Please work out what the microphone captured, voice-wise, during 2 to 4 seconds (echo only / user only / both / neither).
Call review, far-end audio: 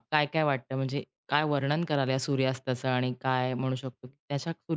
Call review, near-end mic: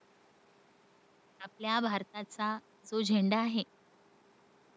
user only